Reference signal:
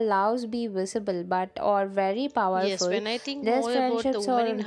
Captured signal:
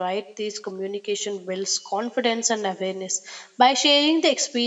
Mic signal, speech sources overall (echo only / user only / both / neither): user only